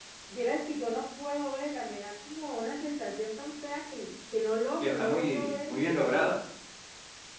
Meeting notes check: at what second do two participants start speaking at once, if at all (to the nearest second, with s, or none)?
5 s